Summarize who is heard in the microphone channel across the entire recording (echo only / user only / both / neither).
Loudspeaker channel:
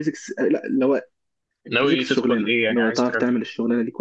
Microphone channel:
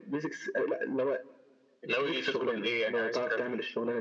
echo only